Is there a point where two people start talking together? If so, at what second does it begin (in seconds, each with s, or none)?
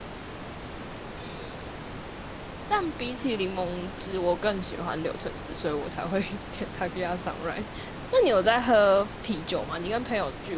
none